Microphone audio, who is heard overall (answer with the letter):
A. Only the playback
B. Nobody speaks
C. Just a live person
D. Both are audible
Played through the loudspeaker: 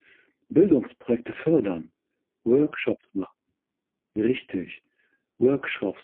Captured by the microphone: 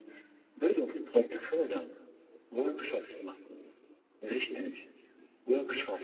A